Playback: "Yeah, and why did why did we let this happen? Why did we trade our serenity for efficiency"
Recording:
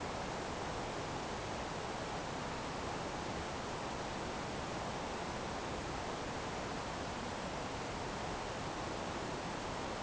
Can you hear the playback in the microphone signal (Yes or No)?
No